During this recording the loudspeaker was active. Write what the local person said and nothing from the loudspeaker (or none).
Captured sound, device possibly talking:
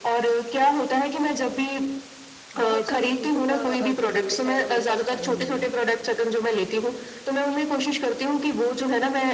बहुत सारे जूतों का अ, जो जोड़े हैं ना मेरे पास पड़े हुए हैं।